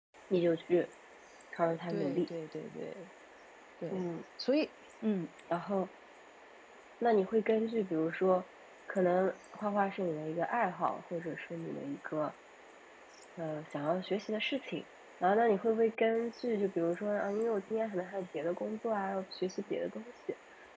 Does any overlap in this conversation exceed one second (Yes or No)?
No